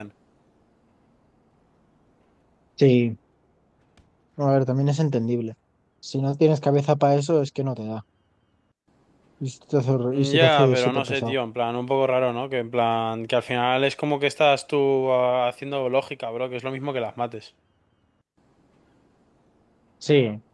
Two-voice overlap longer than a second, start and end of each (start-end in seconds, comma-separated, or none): 10.1-11.3